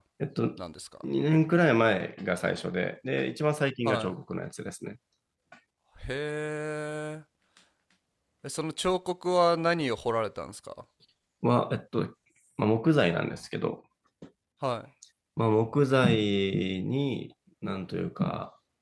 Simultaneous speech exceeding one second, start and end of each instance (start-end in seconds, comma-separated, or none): none